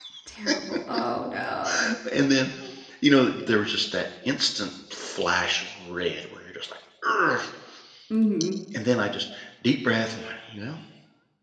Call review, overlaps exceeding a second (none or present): none